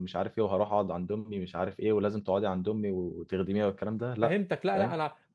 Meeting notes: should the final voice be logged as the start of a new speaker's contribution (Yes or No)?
Yes